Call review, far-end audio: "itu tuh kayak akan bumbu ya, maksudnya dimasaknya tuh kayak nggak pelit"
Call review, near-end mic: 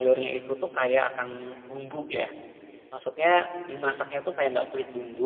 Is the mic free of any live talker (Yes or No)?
Yes